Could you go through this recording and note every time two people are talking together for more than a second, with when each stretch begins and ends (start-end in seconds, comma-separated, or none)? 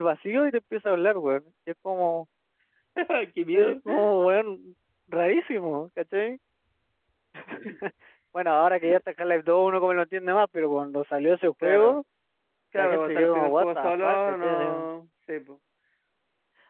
12.8-14.9